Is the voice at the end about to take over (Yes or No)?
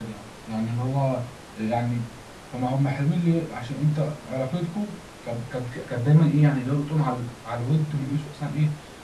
No